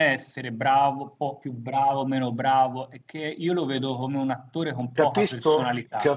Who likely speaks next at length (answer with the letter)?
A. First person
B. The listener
B